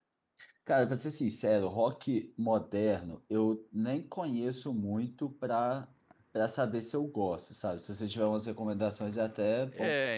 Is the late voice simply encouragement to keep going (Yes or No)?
No